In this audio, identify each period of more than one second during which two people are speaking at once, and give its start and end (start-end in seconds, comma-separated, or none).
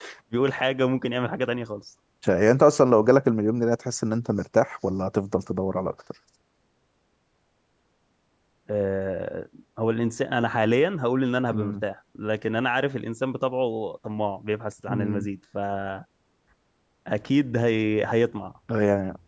none